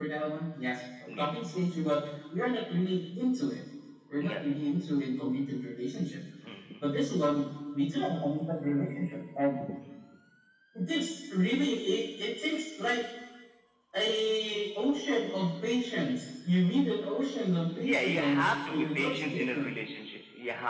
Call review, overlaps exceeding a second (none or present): present